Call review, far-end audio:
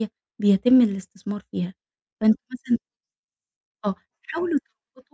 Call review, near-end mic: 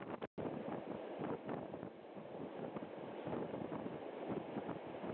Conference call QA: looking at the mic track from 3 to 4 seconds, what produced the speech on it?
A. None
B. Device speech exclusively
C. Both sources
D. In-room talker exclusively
A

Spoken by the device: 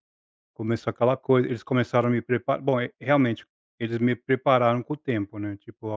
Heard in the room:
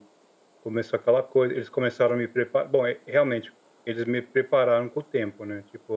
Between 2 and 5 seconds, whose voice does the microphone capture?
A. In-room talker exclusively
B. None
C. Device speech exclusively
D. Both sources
C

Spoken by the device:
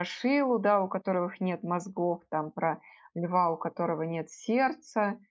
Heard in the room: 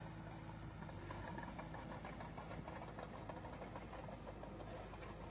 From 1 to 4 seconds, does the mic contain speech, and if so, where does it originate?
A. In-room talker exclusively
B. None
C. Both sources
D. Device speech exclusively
B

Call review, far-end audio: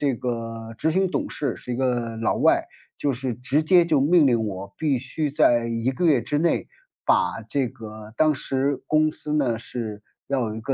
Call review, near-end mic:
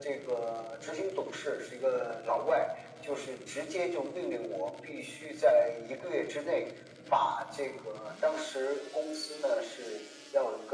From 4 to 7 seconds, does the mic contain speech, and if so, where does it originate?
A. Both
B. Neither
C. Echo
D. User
C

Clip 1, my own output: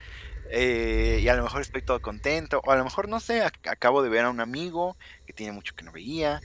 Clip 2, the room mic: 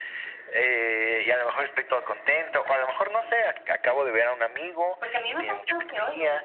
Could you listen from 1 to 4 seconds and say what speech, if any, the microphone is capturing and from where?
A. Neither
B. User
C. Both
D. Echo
D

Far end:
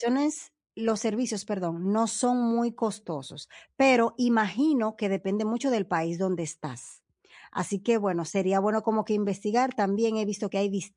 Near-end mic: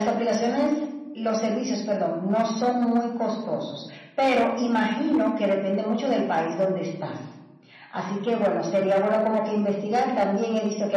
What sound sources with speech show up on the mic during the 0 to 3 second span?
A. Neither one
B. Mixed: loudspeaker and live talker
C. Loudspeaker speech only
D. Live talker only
C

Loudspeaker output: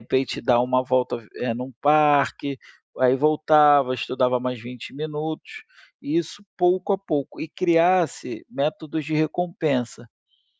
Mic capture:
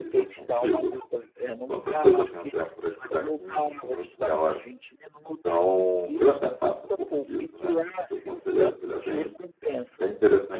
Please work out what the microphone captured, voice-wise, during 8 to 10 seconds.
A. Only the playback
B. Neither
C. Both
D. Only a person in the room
C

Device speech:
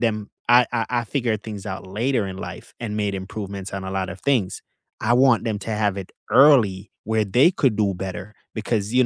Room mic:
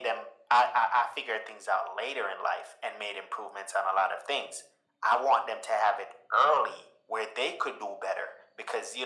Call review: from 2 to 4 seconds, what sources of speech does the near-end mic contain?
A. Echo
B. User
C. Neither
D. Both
A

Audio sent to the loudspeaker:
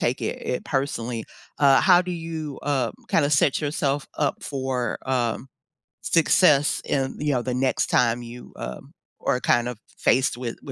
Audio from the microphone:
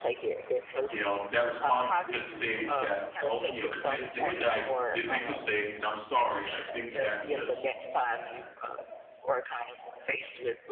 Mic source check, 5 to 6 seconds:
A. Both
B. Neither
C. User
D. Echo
A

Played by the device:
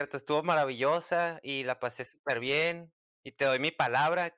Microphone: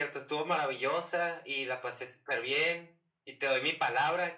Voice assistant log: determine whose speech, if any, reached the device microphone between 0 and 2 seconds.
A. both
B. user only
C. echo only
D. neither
C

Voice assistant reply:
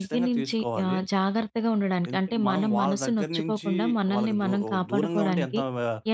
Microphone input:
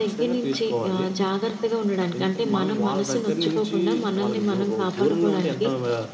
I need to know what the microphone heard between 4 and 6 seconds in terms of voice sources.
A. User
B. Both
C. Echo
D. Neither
C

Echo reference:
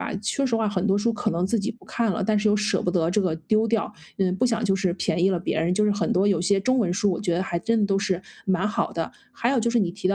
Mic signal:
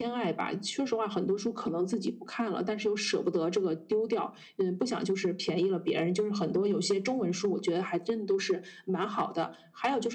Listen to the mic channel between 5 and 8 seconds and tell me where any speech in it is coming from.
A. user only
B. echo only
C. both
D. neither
B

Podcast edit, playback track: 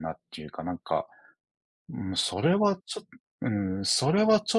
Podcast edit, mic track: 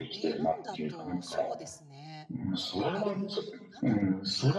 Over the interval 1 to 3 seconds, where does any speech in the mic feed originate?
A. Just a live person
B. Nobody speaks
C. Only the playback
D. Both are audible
D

